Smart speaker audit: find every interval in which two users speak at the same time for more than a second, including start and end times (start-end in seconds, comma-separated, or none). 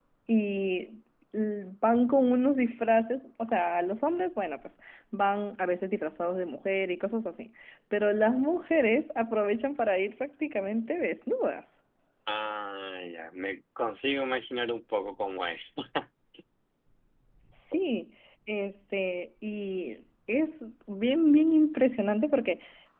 none